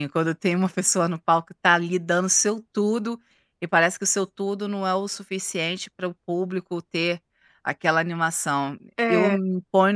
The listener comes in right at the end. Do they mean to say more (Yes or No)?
No